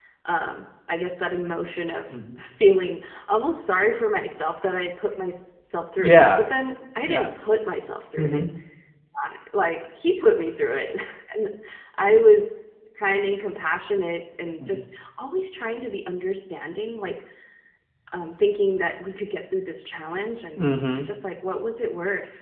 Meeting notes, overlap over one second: none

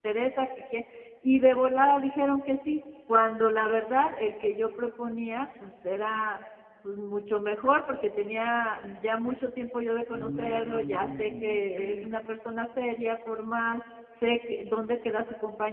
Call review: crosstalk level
present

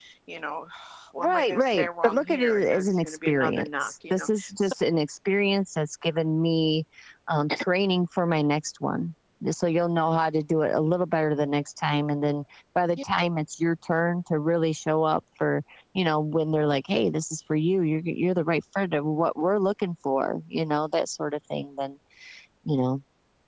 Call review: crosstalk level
present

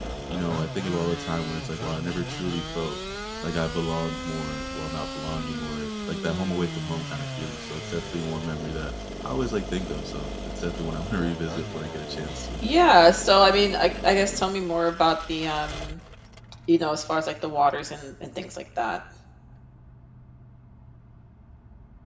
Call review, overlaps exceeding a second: none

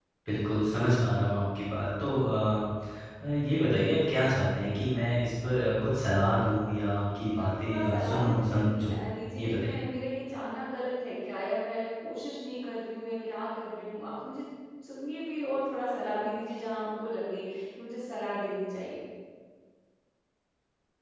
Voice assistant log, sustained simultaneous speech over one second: present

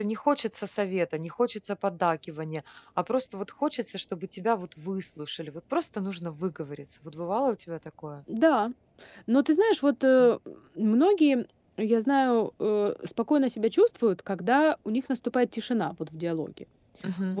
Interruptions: none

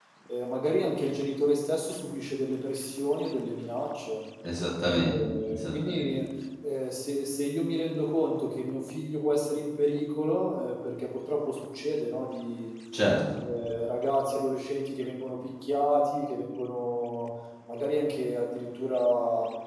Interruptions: present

